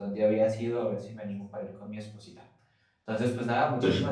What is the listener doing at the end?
listening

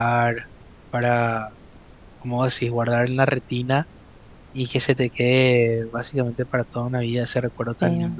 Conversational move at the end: listening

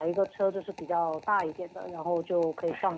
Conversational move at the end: listening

